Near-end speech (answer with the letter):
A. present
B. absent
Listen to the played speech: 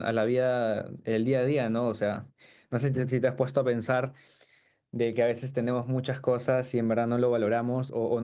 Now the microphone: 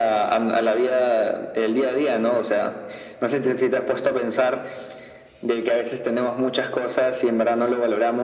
B